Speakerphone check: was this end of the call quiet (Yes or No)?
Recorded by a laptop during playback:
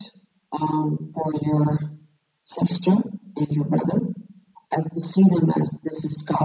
Yes